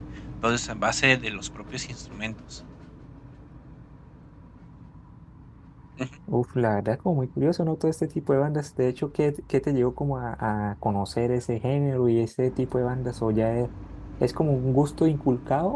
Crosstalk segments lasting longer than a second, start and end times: none

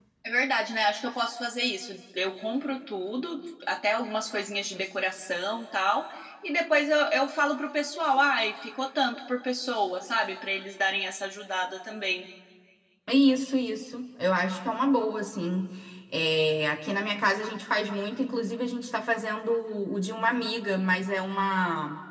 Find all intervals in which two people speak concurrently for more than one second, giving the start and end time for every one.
none

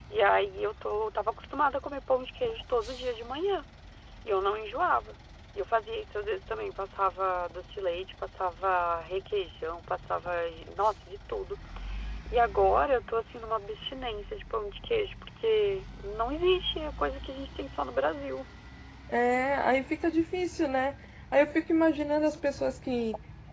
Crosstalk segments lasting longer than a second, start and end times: none

